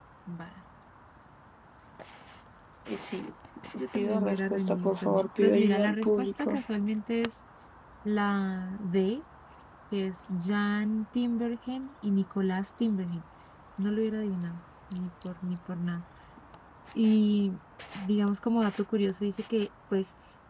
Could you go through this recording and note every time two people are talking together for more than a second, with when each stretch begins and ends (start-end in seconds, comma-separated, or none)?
3.9-6.6